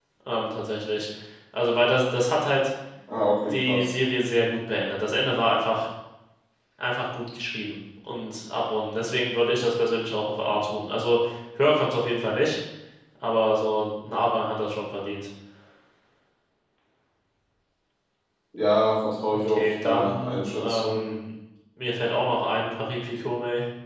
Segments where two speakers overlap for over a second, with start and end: 19.5-21.1

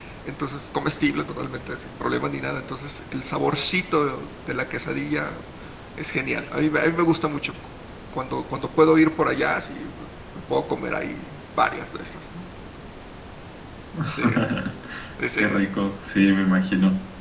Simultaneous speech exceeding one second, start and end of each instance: none

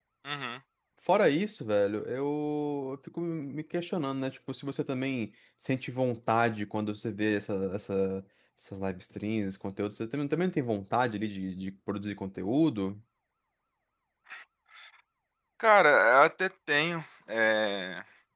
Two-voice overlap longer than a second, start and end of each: none

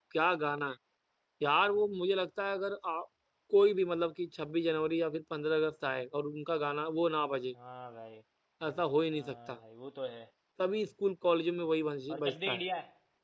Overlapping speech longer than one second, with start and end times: none

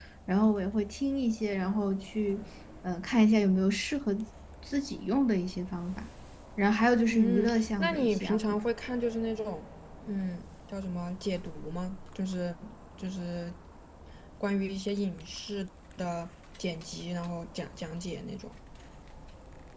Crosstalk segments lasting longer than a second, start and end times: 7.1-8.4

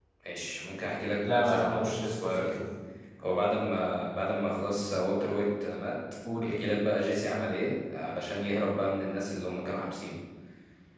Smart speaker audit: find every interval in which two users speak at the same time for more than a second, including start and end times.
1.2-2.6

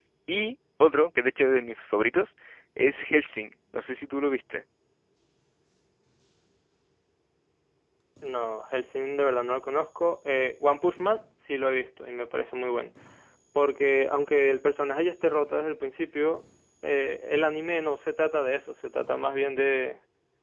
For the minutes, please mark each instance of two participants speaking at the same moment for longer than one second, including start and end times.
none

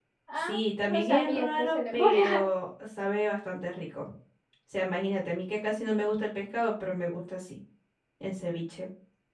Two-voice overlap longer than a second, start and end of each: 0.8-2.4

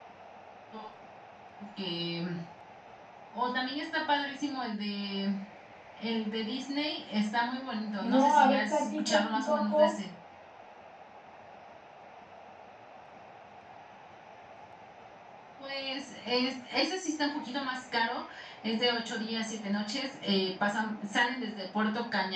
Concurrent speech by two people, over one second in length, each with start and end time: 8.1-9.9

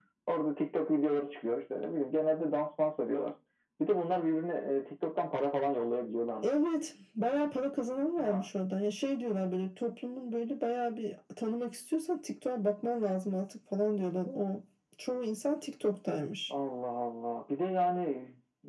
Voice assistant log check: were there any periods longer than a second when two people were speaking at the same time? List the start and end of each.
none

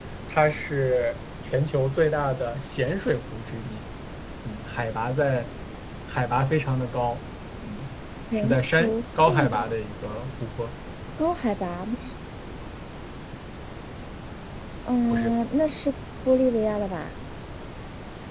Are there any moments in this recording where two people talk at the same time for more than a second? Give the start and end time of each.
8.3-9.7

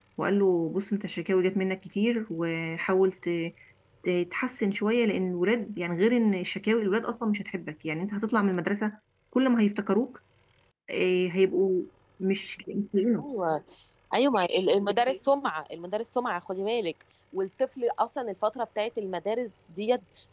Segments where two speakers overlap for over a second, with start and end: none

